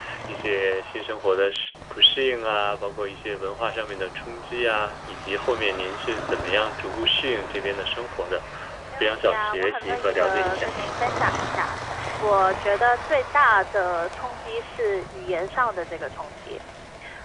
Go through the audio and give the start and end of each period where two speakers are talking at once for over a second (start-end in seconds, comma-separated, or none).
9.0-10.7